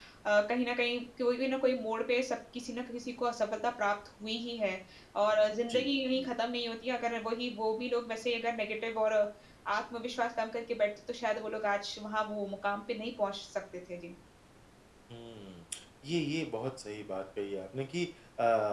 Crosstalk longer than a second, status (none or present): none